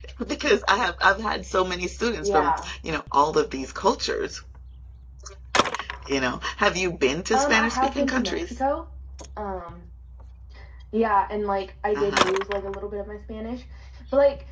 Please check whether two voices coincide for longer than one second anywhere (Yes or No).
Yes